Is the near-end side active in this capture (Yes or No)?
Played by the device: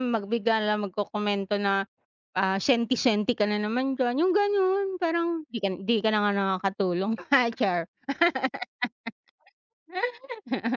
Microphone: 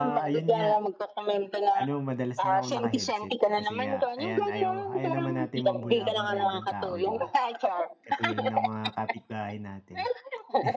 Yes